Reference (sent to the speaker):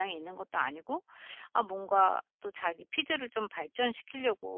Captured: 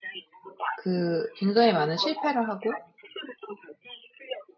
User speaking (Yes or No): Yes